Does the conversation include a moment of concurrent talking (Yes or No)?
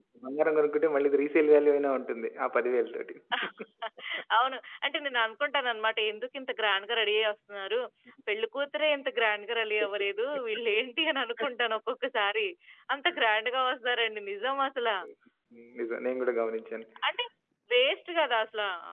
No